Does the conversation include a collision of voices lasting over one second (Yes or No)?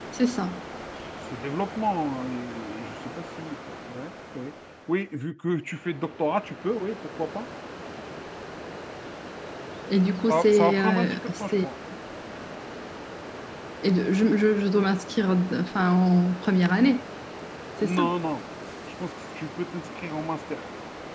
Yes